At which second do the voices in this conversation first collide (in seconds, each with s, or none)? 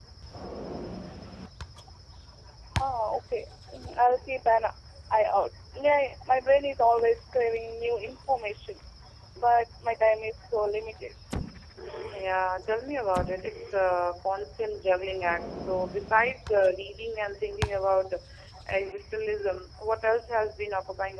none